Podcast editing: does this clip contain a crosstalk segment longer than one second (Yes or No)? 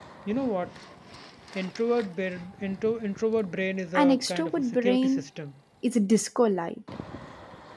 Yes